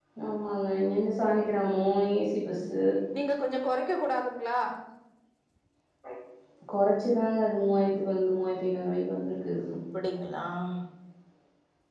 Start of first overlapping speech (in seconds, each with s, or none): none